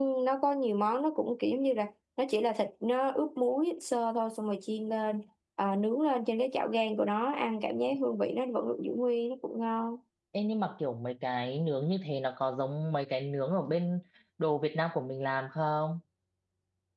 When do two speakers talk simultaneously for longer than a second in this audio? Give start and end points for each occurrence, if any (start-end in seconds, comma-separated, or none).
none